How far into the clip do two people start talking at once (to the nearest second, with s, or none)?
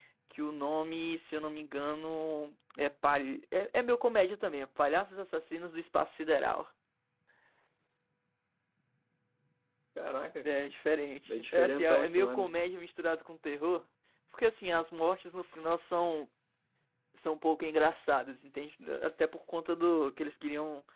11 s